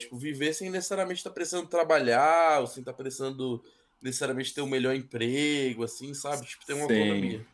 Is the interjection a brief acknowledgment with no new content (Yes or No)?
No